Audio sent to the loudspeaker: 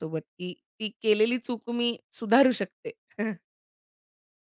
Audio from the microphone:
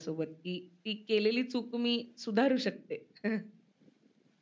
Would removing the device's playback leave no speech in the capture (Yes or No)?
Yes